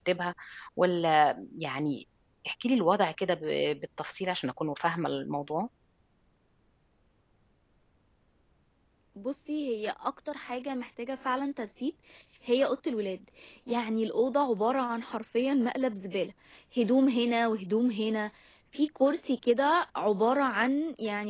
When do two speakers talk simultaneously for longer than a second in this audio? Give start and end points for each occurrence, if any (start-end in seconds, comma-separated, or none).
none